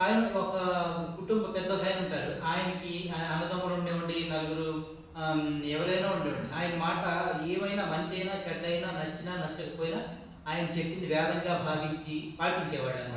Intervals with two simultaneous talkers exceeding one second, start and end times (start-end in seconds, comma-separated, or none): none